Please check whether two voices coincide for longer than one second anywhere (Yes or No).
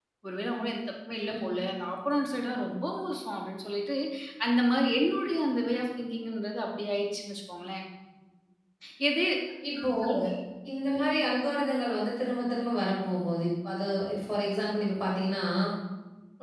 No